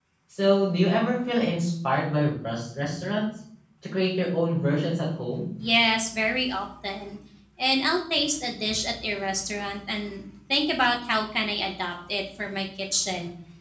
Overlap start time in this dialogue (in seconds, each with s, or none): none